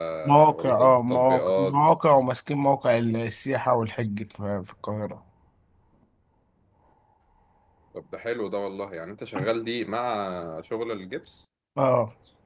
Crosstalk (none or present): present